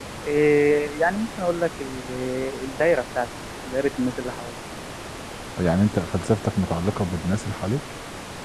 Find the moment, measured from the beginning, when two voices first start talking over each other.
none

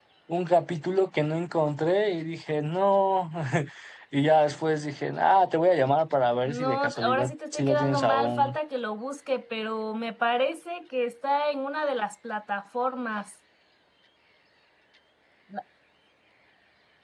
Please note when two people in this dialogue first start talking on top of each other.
6 s

